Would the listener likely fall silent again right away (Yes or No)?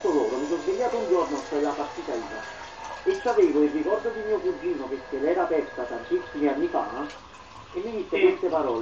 Yes